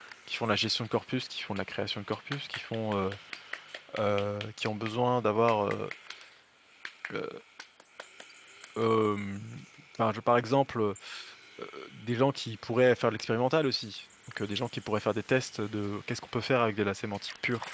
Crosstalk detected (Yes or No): No